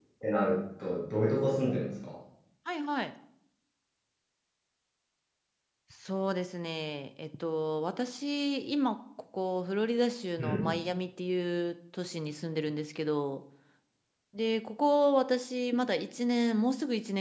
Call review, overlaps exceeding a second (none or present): none